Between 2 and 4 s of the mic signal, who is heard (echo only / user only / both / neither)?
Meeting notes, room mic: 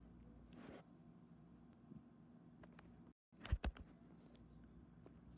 neither